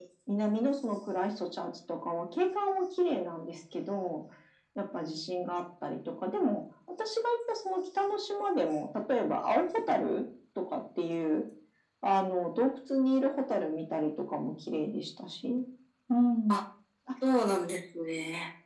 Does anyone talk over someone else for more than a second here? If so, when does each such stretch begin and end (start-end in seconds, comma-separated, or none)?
none